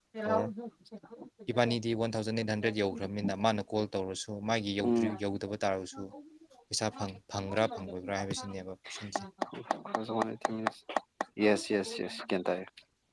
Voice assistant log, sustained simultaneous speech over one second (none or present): none